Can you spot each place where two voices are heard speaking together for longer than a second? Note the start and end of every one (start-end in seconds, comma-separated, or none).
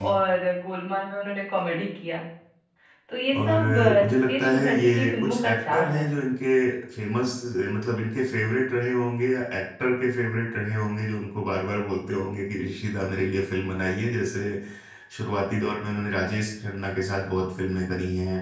3.4-6.1